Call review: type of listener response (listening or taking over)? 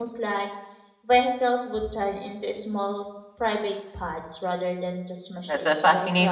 taking over